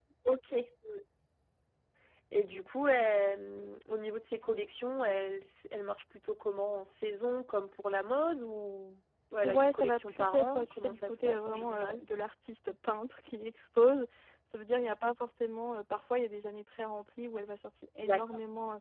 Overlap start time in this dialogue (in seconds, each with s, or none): 9.4 s